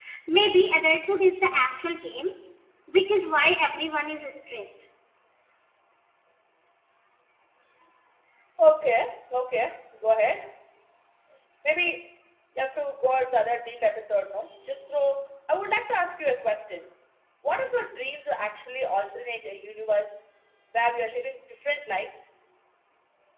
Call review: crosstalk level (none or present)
none